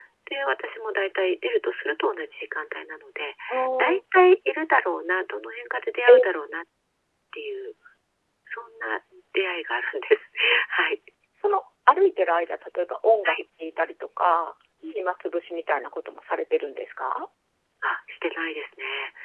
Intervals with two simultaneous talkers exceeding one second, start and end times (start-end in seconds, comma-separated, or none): none